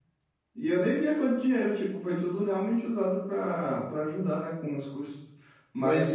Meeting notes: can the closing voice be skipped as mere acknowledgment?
Yes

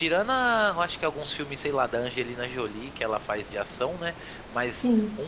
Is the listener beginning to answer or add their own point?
No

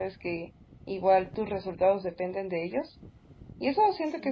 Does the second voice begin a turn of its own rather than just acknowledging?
No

